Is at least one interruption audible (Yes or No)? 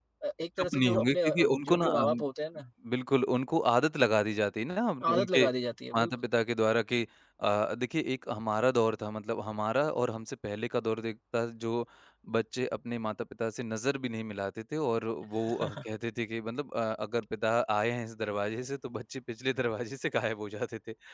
Yes